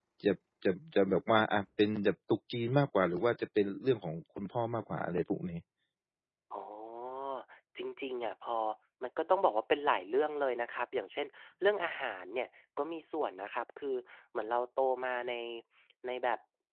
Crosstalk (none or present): none